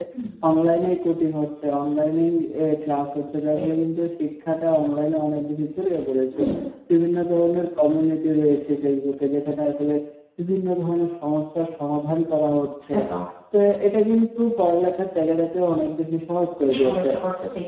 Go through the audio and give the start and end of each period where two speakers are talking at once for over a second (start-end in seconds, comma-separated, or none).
none